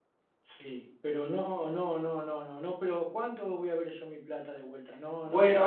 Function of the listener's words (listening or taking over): taking over